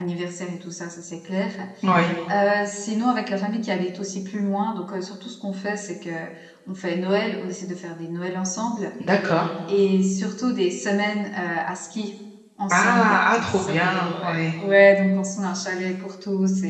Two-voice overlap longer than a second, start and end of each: 12.7-14.5

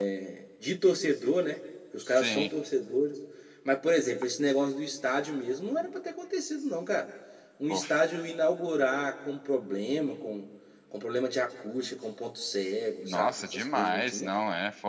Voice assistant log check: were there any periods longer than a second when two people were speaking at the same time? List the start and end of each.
13.1-14.4

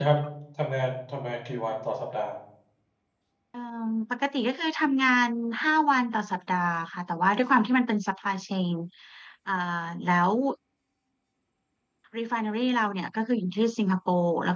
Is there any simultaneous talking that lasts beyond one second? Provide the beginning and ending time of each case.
none

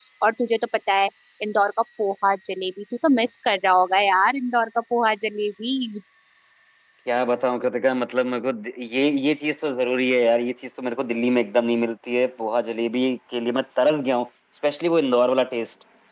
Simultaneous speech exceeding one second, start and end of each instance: none

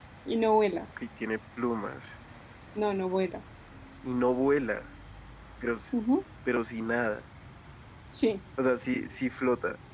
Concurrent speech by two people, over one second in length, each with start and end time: none

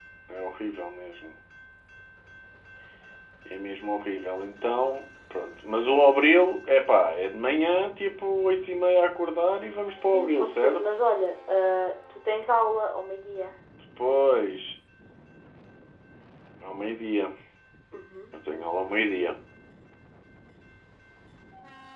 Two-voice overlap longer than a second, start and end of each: 9.5-10.8

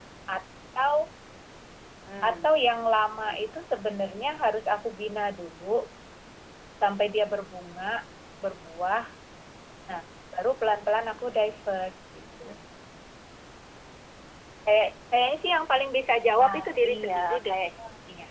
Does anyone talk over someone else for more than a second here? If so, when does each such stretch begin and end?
16.4-17.6

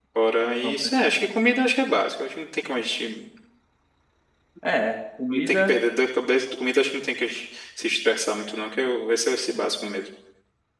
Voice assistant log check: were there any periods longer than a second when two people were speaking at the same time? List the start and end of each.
none

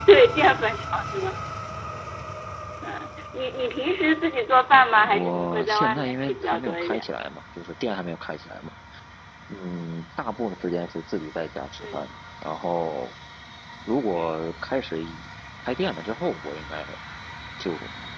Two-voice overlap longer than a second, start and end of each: 5.0-7.1

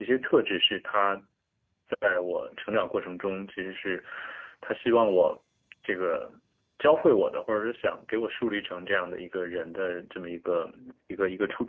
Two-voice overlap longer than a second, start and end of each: none

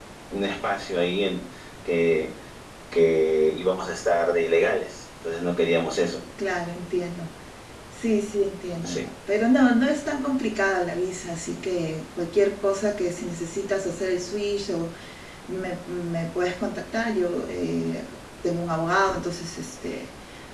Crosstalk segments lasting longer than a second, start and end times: none

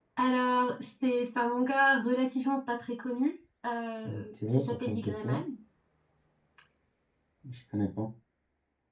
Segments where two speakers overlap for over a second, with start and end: 4.0-5.4

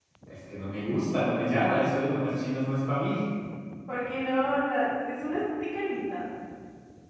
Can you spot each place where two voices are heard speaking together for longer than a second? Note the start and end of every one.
none

